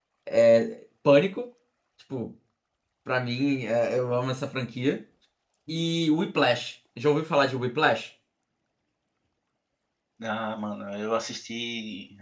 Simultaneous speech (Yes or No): No